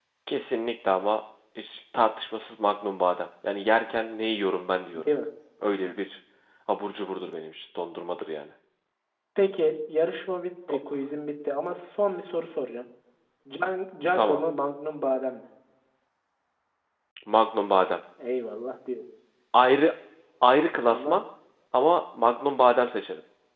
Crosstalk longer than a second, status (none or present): none